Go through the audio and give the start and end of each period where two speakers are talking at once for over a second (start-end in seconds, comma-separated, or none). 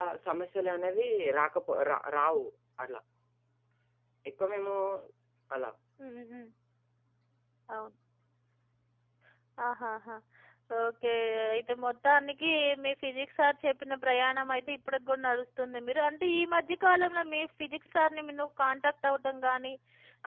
none